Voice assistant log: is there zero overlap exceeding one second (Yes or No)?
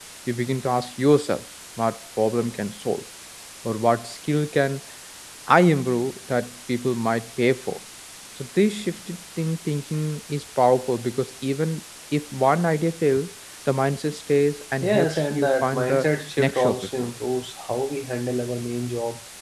No